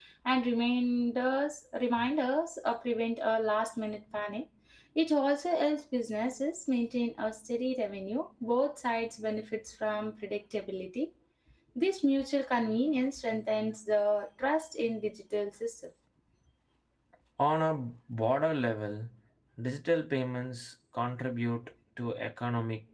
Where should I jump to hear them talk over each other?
none

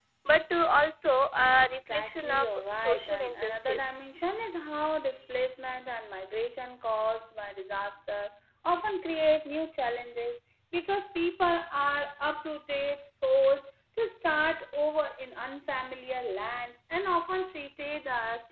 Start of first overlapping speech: 1.6 s

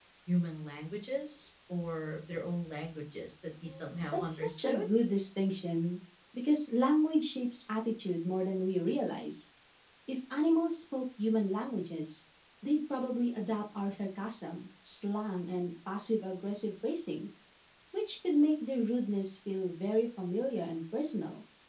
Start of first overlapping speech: 3.6 s

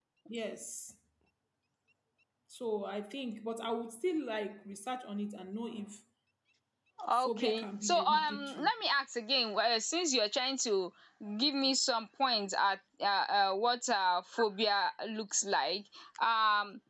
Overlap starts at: 7.1 s

